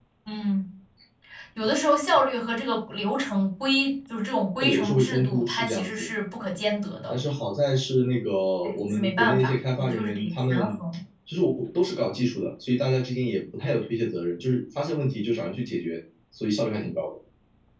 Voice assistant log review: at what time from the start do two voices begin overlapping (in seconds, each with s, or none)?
4.6 s